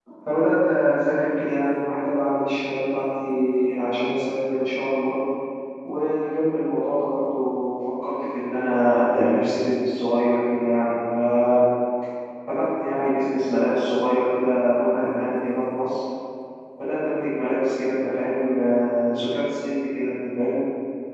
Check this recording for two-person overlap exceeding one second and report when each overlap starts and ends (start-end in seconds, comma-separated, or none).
none